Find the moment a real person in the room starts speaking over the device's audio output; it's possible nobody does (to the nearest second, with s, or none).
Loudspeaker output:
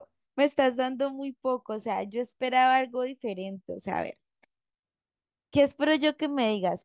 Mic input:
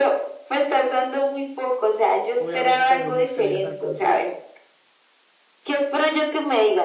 2 s